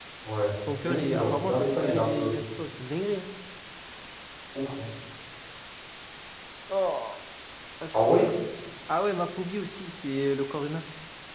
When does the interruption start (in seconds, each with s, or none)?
0.8 s